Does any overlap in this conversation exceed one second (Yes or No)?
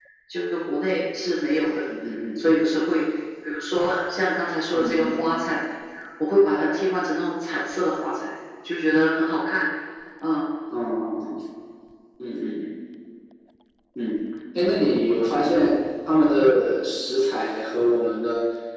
No